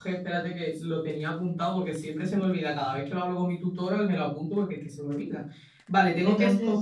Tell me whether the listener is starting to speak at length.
No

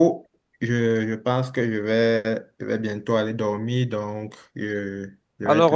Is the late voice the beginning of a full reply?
Yes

